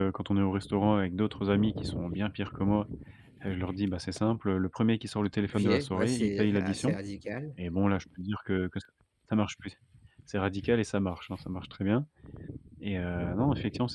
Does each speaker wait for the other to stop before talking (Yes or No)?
No